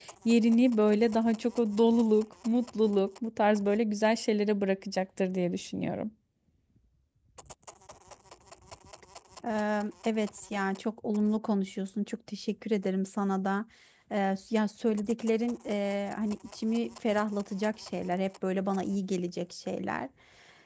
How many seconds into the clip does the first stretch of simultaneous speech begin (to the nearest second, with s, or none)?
none